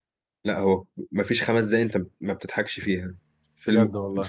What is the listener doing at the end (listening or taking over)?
listening